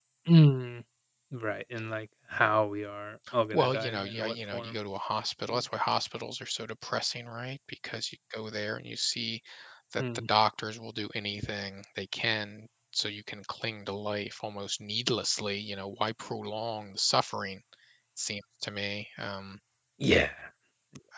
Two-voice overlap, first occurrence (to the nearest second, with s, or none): 4 s